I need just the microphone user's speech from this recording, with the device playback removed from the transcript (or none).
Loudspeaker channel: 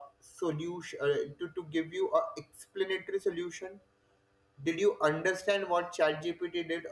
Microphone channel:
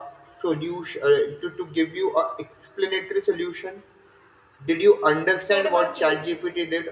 What about you?